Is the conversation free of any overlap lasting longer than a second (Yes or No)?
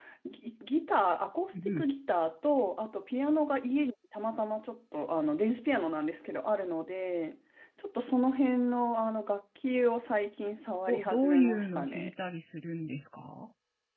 No